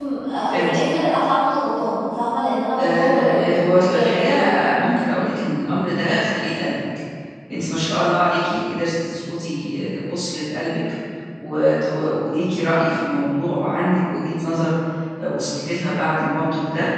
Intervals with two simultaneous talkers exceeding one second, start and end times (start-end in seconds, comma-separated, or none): 2.8-4.5